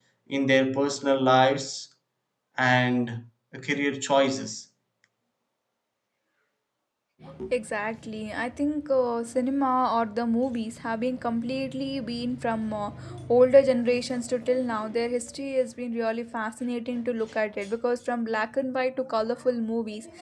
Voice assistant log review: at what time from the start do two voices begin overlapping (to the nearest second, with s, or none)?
none